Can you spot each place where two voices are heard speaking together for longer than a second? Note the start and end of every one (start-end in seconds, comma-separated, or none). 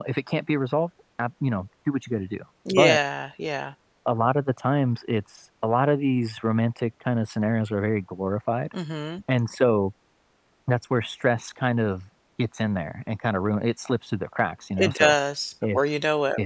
none